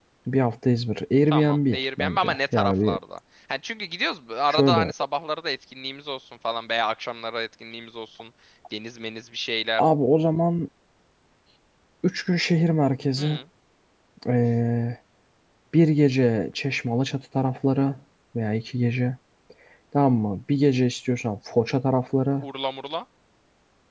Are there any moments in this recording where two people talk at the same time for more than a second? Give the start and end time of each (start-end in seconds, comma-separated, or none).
1.3-3.0